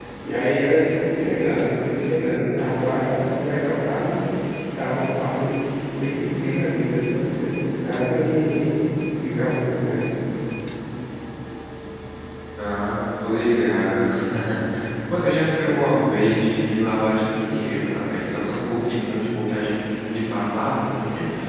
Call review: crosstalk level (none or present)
none